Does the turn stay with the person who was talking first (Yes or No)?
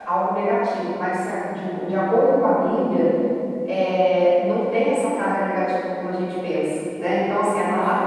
Yes